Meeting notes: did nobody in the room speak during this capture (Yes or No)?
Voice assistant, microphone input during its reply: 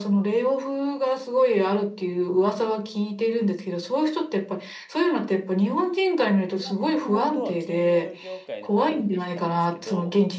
No